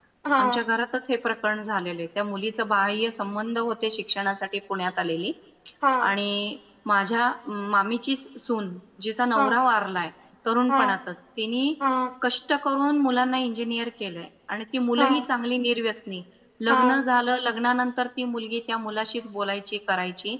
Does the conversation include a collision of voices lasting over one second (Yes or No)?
No